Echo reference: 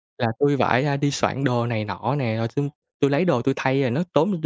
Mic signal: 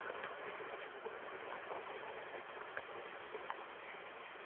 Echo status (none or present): none